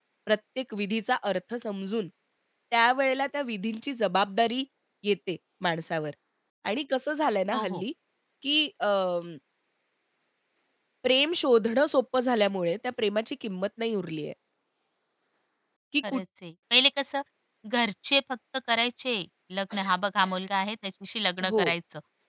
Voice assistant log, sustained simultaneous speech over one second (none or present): none